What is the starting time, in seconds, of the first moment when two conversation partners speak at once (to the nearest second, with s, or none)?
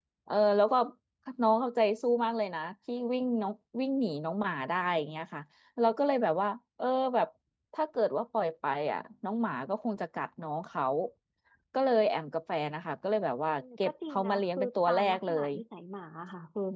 14 s